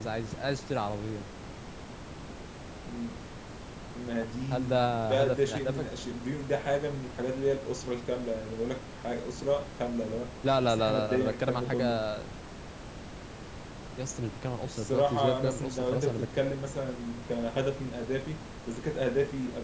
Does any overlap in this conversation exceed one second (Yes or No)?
Yes